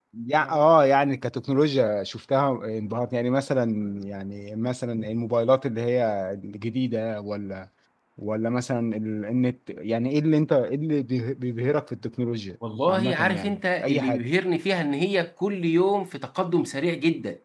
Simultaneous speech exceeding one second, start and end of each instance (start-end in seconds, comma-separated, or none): 12.9-14.2